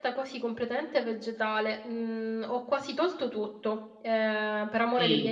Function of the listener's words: taking over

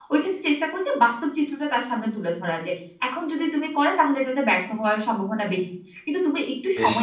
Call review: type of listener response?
listening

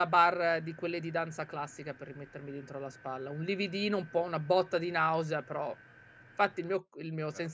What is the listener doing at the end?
listening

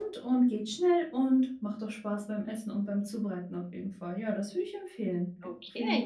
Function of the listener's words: taking over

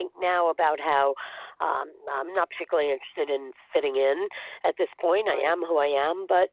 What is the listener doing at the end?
listening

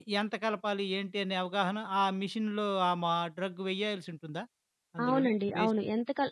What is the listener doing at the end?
taking over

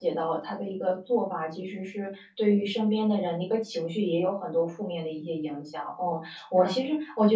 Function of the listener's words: listening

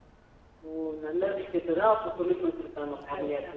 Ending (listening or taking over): taking over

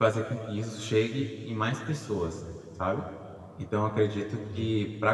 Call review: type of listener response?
listening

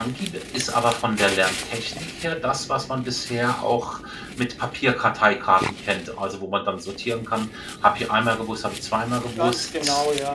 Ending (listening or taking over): taking over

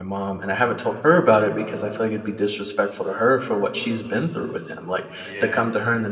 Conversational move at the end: listening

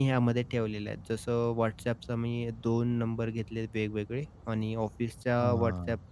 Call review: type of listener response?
listening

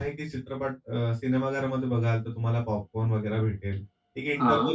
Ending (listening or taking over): listening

